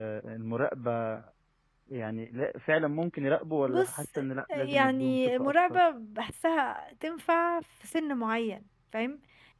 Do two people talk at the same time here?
Yes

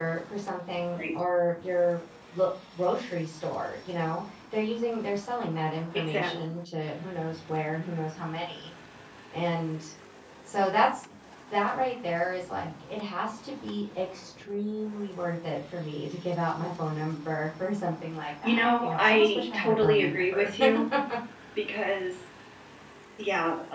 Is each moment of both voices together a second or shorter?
No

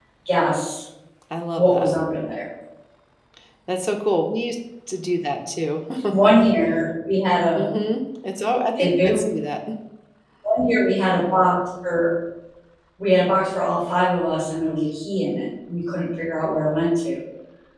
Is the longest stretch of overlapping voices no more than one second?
Yes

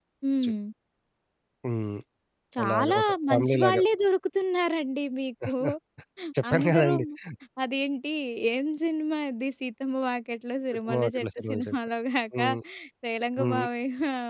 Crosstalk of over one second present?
Yes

